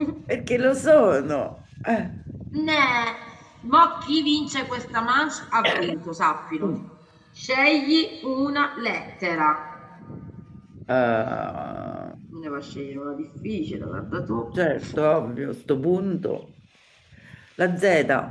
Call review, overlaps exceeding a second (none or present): none